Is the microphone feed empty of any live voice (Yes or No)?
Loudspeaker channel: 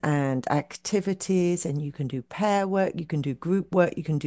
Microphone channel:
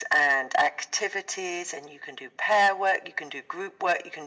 Yes